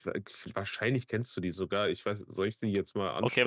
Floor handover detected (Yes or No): Yes